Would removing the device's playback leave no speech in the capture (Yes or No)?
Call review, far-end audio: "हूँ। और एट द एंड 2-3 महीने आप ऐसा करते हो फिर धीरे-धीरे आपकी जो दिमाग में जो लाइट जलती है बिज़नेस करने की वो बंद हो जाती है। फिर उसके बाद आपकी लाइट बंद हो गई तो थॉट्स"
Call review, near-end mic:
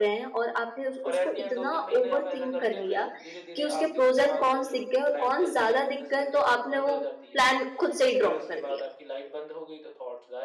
No